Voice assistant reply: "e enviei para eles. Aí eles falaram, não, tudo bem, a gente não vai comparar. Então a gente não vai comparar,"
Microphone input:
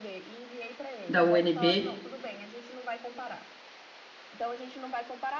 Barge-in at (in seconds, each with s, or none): 1.1 s